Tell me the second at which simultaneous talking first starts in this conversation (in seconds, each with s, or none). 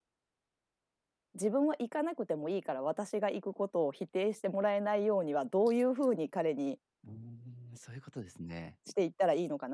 none